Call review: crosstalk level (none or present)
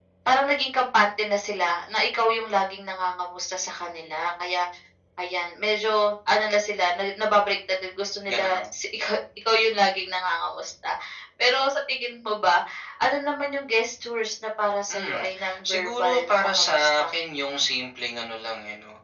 present